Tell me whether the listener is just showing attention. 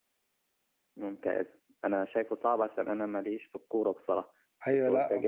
No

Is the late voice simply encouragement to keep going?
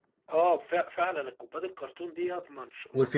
No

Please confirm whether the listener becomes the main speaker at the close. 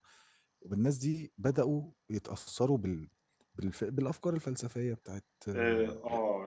Yes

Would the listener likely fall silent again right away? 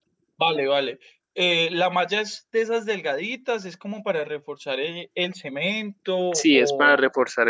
No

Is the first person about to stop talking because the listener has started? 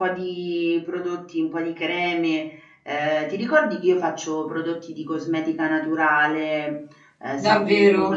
Yes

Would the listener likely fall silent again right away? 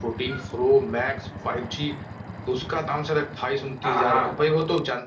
Yes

